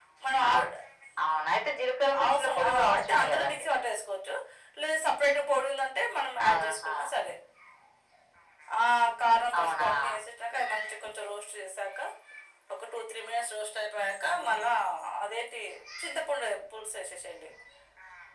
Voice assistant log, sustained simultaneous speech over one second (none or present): present